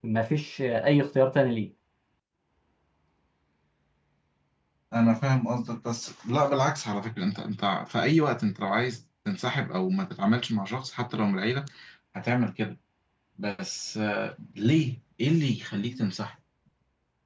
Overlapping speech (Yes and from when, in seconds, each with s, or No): No